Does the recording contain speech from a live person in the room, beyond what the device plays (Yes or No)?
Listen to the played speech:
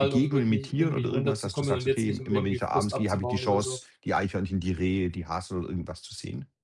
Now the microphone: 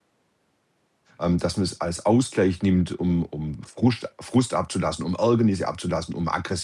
Yes